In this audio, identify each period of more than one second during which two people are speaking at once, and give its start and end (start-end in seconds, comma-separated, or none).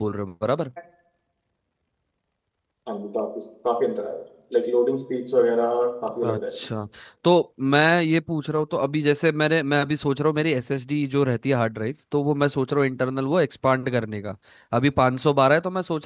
none